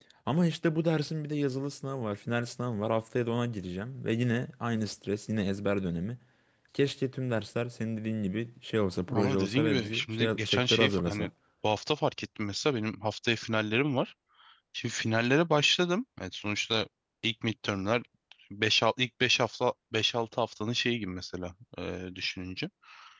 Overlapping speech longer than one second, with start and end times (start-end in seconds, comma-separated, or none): 9.1-11.3